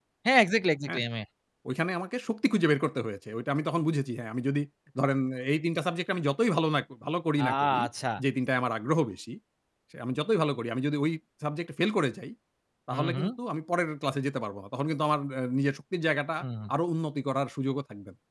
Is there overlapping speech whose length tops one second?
No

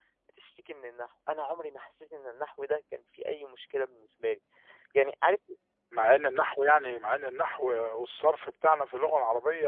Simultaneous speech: No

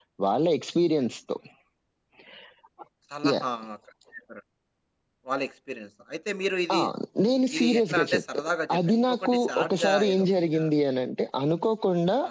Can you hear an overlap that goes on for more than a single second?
Yes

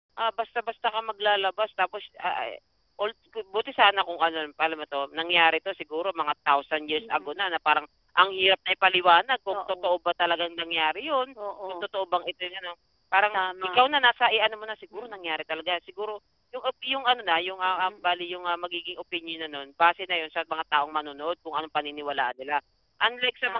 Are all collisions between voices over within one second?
Yes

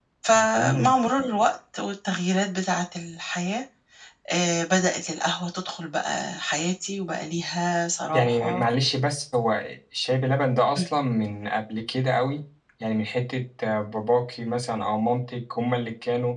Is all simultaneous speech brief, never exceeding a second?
Yes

